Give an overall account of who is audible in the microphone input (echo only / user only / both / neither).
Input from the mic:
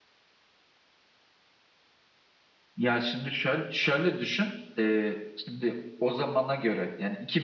user only